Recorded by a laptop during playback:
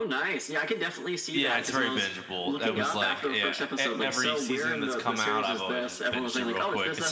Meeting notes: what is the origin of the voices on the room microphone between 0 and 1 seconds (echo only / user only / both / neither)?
echo only